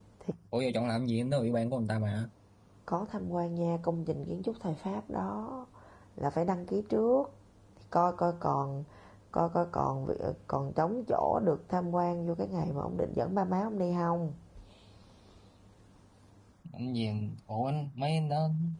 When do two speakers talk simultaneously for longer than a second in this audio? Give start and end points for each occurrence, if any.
none

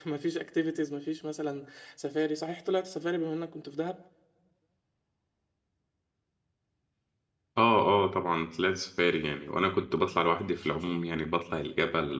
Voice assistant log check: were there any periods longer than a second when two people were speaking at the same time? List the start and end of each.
none

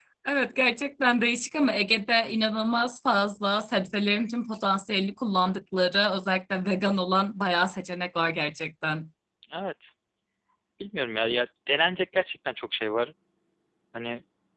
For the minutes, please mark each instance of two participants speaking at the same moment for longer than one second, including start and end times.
none

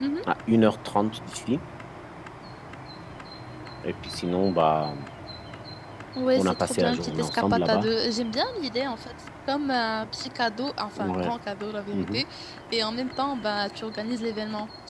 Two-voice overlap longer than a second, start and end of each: 6.4-7.9

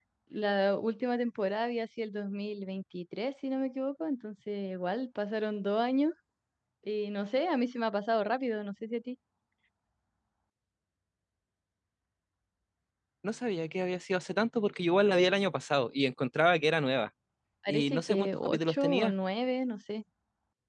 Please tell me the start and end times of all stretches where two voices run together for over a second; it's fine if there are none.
17.7-19.1

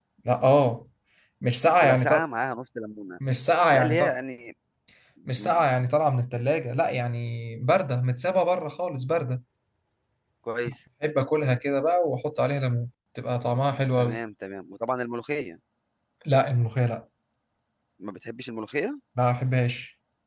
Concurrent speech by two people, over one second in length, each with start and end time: none

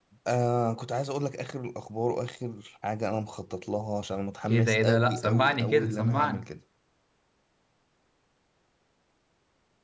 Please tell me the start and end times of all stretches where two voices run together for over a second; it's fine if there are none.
4.5-6.5

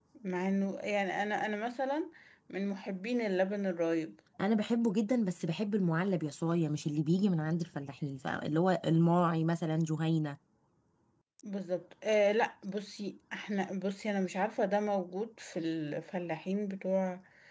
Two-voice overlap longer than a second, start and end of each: none

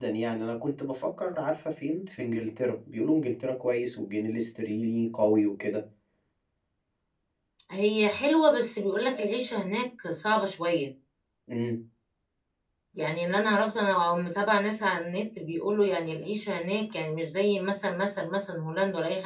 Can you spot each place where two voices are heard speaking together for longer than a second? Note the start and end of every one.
none

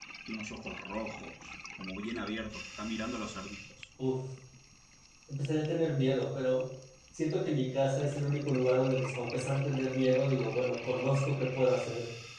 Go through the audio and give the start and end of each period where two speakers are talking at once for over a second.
none

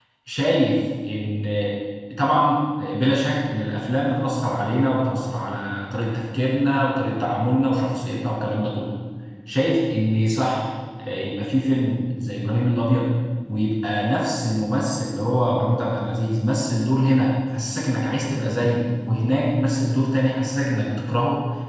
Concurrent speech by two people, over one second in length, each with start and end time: none

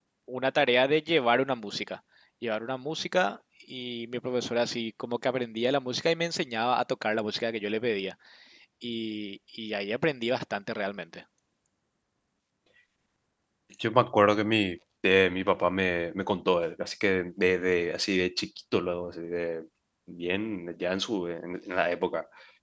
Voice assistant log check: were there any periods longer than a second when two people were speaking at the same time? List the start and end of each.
none

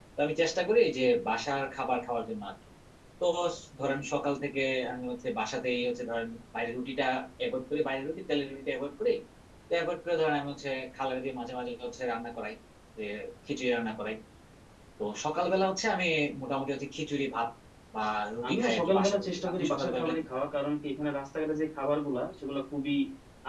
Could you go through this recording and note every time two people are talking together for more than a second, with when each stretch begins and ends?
18.5-20.2

